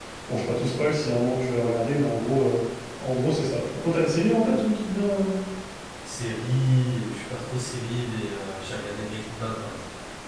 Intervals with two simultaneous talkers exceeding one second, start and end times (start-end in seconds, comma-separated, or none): none